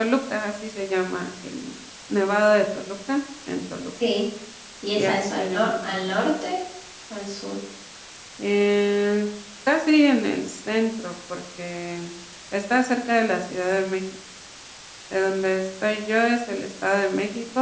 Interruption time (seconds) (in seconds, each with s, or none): 5.0 s